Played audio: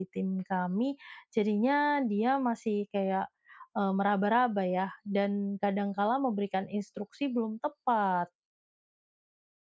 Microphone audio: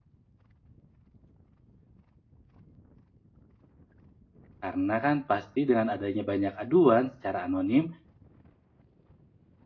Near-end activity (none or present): present